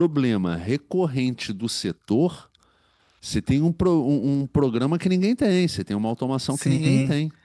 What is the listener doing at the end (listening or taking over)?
taking over